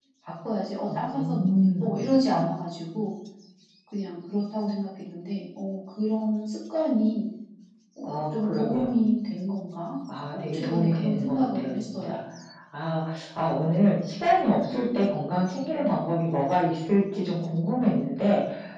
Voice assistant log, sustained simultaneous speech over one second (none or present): present